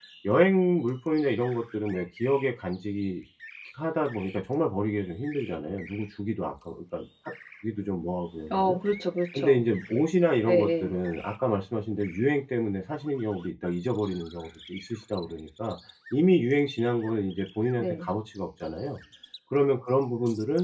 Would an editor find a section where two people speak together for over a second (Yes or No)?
No